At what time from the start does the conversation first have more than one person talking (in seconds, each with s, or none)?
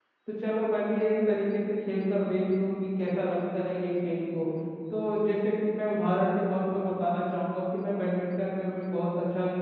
none